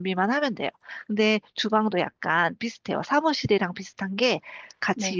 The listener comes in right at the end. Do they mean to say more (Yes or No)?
No